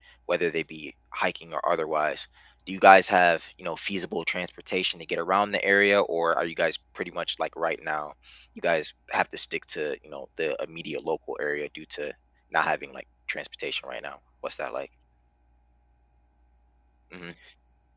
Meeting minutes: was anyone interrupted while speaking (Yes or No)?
No